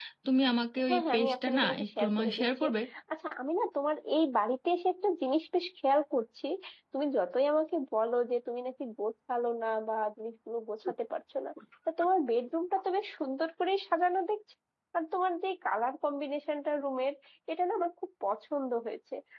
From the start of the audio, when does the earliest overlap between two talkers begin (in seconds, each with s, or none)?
0.9 s